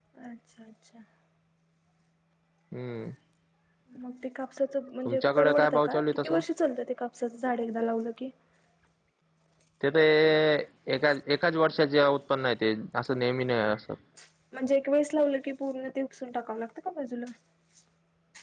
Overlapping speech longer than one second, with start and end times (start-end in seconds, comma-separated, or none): 5.0-6.4